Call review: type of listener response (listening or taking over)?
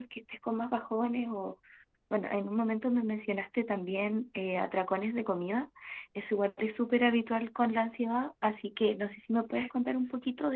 taking over